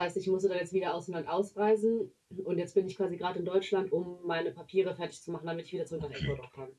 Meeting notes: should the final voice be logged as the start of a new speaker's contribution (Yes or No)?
Yes